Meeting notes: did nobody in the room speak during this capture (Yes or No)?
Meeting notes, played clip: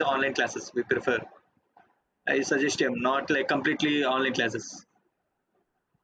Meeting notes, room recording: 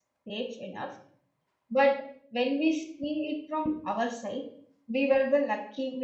No